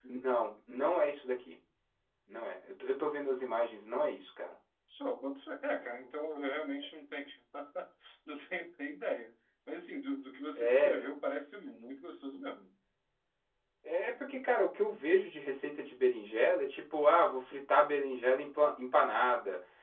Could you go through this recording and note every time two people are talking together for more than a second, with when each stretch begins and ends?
none

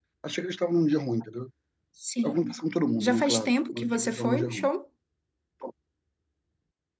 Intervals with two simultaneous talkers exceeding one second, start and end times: 3.0-4.7

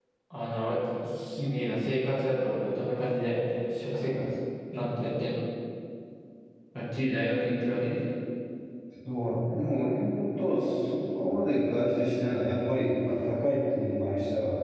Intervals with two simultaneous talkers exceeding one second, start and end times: none

